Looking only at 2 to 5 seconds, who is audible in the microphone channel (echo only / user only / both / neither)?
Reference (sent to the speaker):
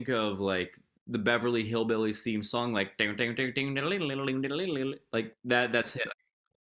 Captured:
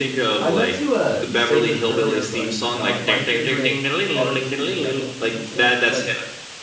both